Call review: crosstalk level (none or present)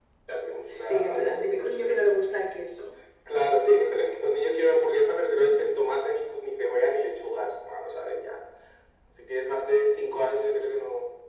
present